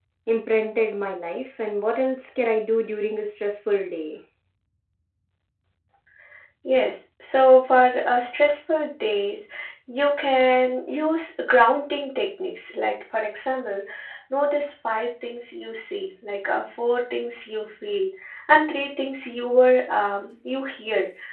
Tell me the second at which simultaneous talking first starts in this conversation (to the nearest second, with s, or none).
none